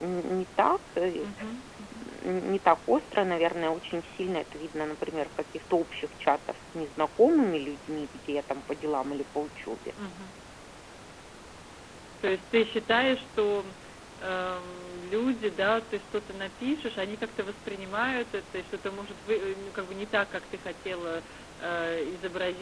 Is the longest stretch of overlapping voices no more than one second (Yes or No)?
Yes